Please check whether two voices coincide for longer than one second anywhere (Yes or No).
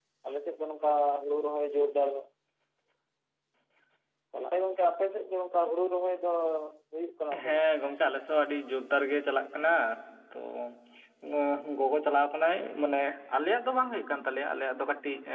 No